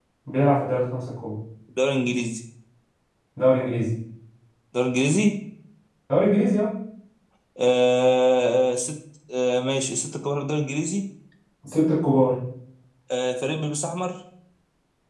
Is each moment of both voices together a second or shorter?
Yes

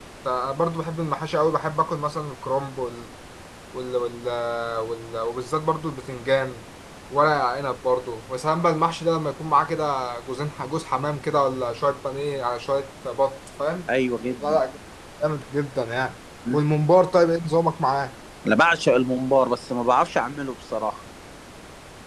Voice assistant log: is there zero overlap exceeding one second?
Yes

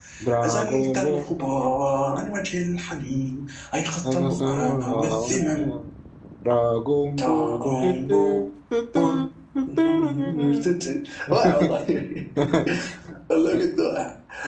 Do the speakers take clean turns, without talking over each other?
No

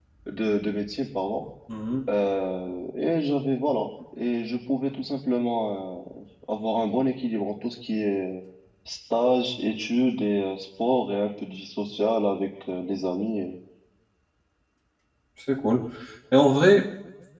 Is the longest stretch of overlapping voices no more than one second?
Yes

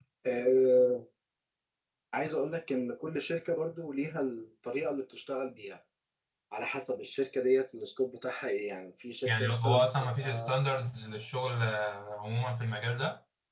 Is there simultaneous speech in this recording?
Yes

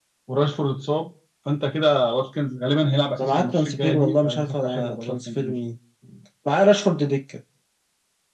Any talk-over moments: Yes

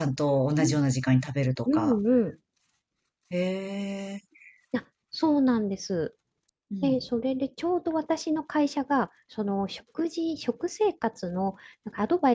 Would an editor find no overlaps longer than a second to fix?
Yes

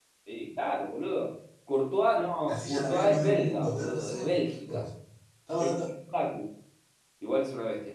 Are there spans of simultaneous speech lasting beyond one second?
Yes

